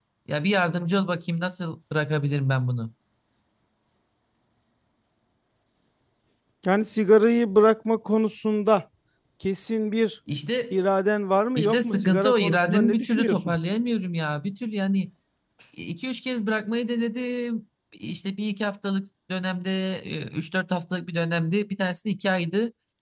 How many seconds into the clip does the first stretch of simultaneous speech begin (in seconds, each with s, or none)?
11.6 s